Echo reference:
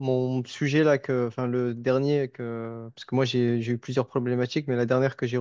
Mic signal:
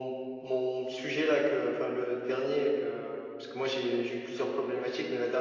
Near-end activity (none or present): none